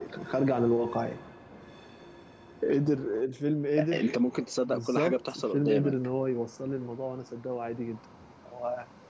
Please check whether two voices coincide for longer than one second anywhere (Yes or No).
Yes